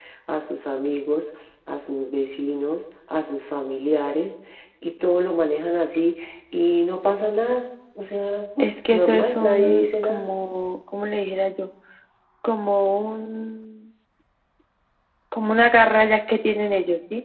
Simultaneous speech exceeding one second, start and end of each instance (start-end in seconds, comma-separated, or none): 8.6-10.3